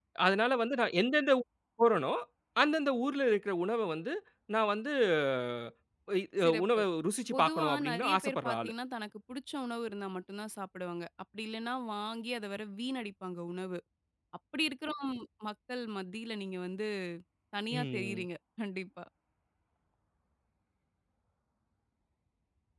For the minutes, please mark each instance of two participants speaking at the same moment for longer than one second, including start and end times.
7.3-8.7

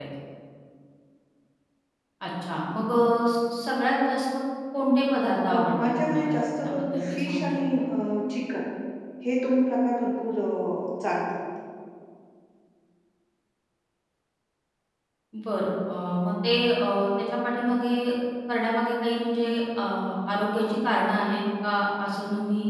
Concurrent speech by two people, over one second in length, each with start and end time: 5.5-7.8

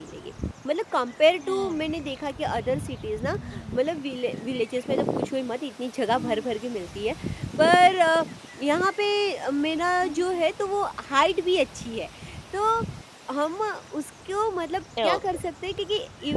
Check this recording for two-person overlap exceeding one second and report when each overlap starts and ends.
none

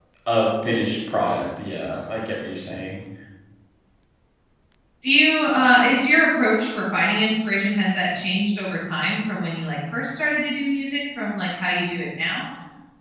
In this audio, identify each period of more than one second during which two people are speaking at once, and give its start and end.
none

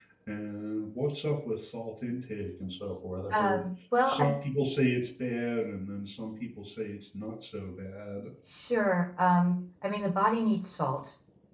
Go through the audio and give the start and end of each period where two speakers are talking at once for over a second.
none

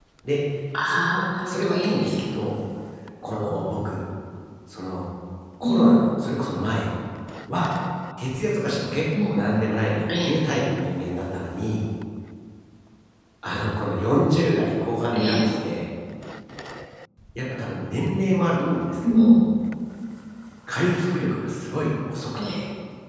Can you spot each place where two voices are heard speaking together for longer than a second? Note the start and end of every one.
0.8-2.2

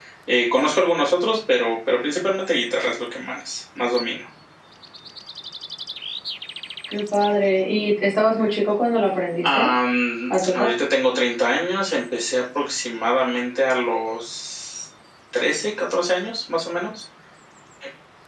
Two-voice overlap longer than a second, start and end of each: none

